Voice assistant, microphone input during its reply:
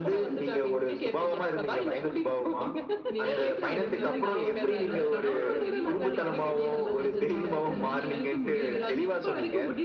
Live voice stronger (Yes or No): No